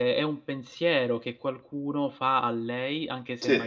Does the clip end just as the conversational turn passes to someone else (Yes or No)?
No